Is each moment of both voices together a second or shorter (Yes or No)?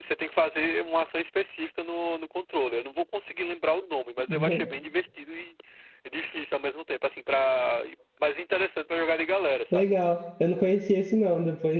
Yes